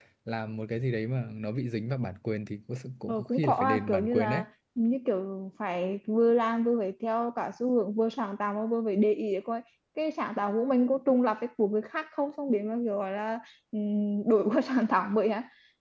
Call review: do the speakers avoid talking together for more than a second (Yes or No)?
No